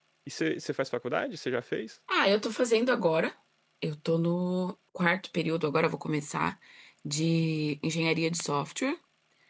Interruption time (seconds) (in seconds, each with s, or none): none